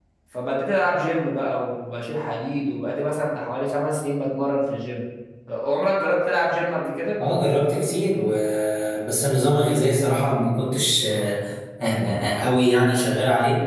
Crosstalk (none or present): none